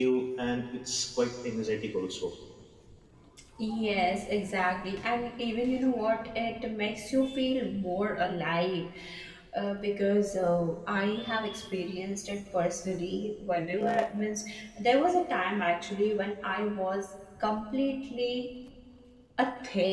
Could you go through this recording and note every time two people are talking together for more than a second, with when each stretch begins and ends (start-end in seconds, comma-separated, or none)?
none